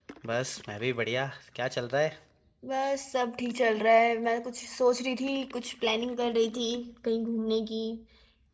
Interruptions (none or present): none